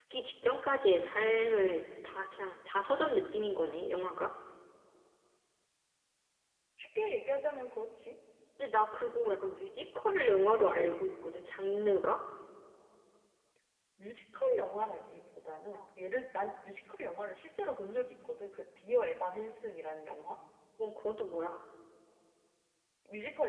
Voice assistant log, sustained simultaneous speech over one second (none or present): none